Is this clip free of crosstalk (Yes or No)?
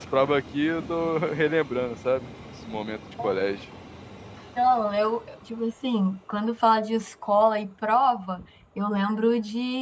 Yes